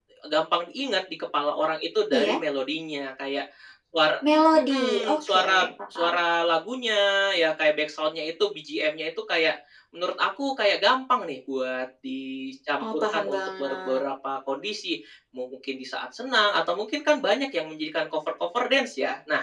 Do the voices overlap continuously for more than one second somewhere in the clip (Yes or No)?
Yes